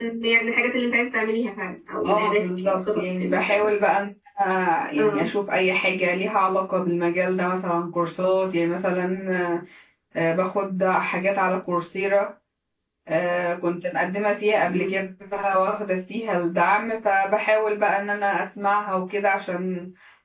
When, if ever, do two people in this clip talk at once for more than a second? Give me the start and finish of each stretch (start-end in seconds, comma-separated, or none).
2.0-3.7